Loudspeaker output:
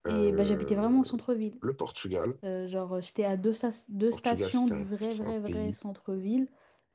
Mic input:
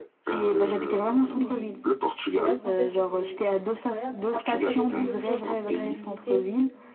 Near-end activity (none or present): present